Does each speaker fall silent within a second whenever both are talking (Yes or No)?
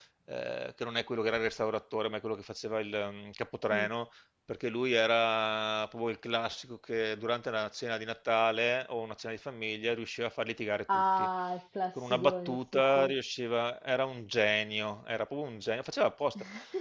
No